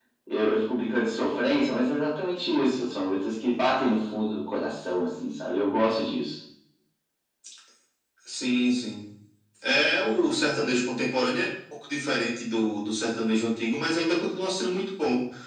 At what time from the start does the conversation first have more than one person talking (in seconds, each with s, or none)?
none